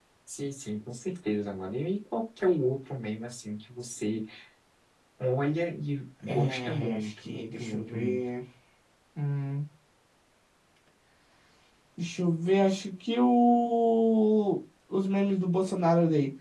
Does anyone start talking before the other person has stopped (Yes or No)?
Yes